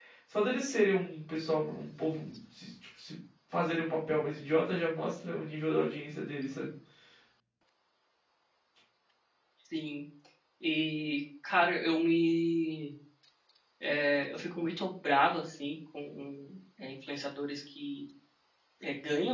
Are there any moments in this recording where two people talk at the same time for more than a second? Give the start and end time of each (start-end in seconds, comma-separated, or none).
none